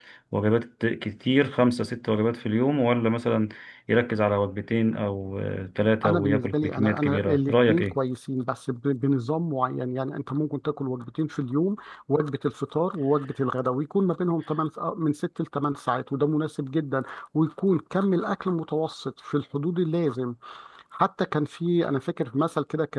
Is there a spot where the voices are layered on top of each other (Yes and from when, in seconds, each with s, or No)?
Yes, from 6.1 s